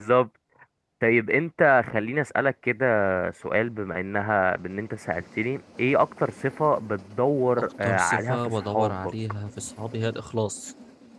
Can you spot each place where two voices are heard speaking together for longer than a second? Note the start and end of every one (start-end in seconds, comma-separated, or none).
7.6-9.1